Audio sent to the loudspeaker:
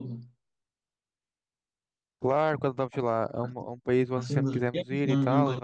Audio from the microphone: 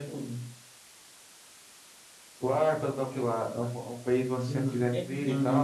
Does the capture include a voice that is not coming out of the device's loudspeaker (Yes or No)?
No